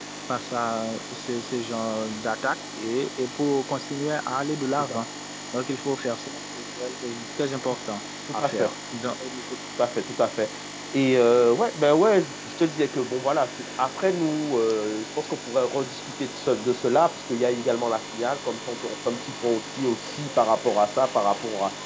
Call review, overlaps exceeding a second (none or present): none